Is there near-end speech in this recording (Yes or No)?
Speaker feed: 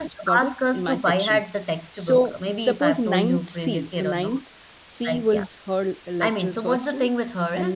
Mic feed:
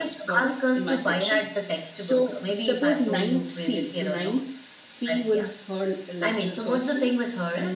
No